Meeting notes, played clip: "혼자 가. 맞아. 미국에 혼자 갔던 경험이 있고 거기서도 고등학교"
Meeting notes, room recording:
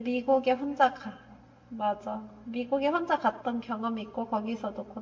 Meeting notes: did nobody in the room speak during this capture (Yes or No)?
Yes